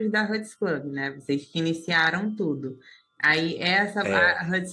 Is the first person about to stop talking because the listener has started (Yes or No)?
No